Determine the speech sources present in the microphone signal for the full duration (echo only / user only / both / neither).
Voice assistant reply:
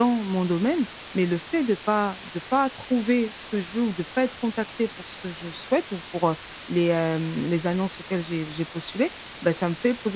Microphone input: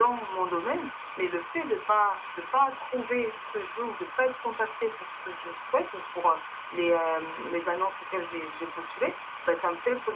echo only